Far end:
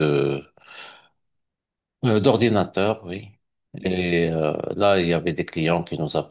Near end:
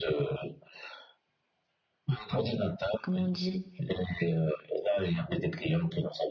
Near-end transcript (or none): comment on dit